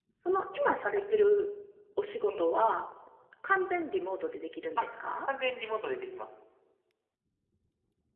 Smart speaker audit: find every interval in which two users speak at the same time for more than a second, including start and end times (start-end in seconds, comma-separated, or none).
none